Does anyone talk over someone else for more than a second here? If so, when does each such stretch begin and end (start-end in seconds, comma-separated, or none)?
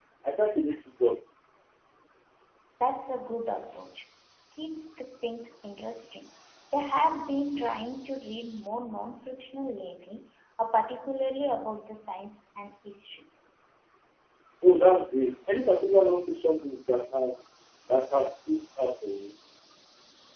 none